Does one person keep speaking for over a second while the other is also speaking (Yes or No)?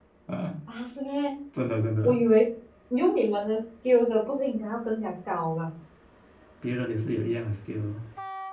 No